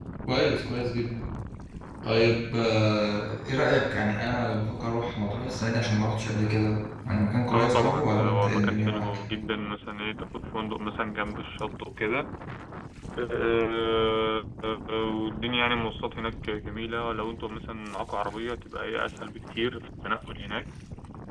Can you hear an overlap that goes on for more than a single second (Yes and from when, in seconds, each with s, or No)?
Yes, from 7.5 s